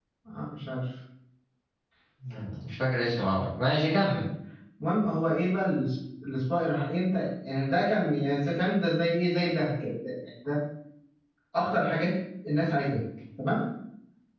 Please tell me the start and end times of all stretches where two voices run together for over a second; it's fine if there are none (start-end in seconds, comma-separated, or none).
none